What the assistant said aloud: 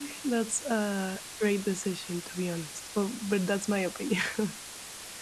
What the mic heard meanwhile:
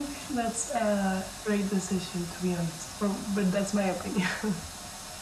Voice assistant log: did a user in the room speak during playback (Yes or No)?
No